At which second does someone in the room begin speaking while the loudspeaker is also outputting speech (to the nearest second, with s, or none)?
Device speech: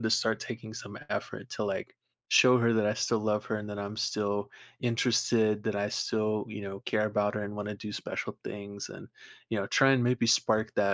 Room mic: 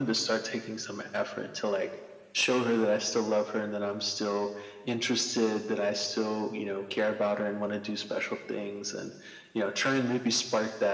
none